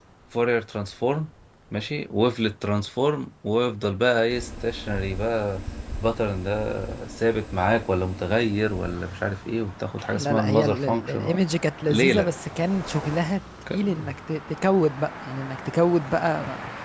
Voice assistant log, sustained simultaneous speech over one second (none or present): present